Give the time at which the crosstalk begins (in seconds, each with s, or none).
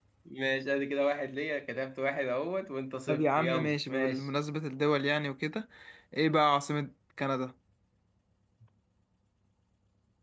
3.1 s